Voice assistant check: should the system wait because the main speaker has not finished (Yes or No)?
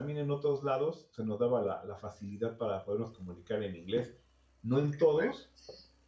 Yes